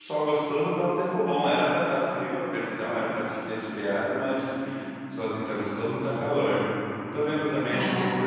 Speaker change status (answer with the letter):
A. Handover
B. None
B